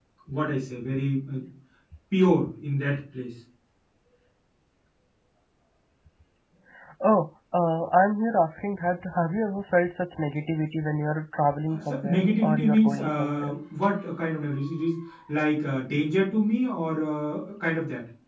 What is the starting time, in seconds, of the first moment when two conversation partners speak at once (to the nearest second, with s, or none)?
12 s